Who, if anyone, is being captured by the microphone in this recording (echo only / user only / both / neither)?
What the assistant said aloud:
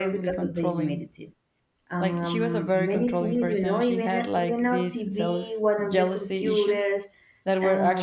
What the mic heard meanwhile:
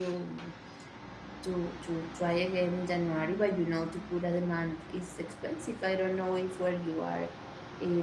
user only